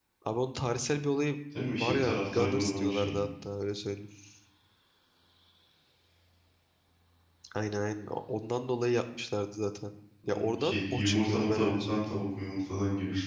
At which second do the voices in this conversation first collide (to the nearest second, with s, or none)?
2 s